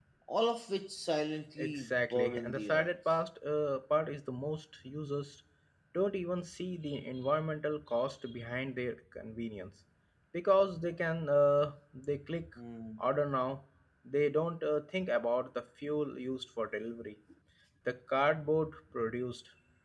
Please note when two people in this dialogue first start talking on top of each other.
2 s

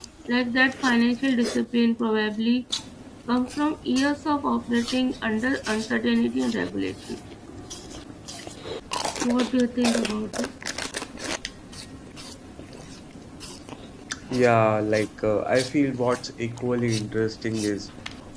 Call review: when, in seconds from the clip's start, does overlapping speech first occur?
none

